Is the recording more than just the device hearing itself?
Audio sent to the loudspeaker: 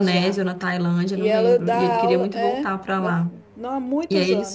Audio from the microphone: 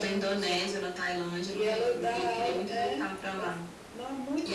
No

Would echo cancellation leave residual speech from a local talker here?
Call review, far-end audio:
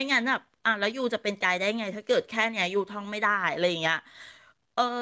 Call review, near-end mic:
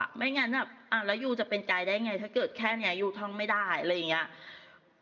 No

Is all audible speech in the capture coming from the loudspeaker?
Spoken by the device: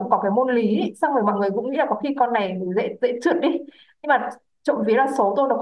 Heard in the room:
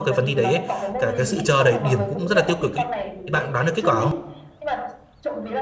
No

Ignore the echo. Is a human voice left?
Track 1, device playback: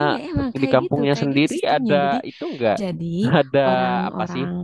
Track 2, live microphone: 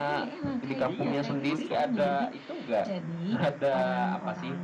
Yes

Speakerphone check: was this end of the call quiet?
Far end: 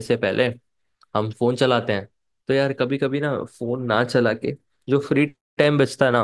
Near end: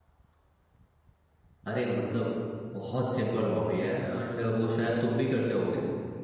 No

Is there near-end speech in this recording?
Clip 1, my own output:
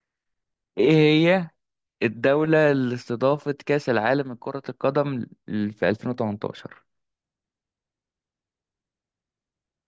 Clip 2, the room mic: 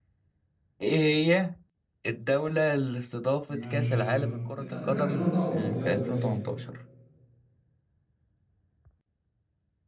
Yes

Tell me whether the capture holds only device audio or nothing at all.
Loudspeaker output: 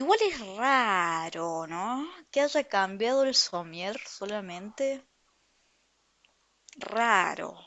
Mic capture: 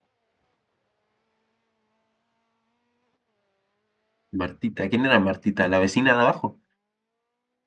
No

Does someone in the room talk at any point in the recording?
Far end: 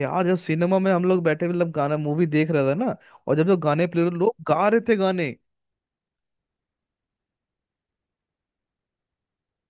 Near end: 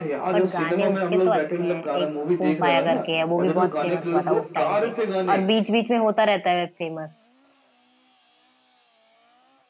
Yes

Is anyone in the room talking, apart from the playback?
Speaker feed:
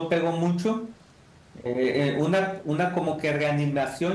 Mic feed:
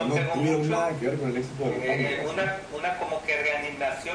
Yes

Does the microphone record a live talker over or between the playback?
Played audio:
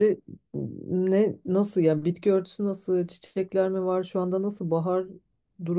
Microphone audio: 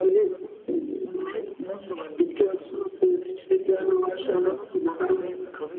Yes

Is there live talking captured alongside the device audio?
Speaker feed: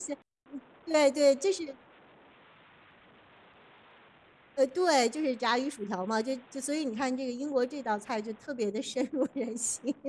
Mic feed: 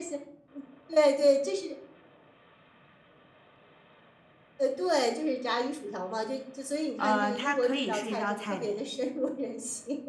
Yes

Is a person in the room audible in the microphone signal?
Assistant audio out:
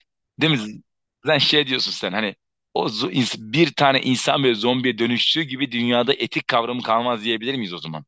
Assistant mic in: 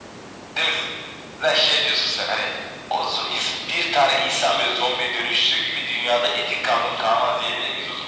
No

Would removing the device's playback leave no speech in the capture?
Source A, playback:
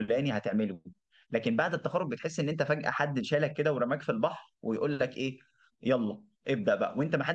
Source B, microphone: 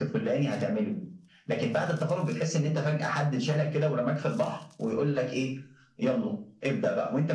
Yes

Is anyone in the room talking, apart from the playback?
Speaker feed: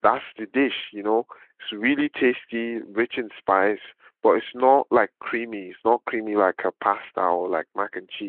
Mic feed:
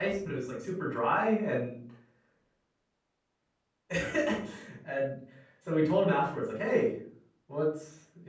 Yes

